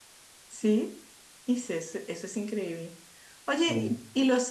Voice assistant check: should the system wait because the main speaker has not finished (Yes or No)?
Yes